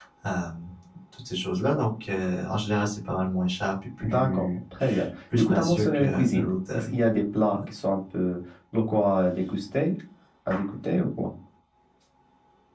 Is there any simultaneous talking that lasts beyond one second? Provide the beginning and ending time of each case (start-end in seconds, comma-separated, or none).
5.4-6.9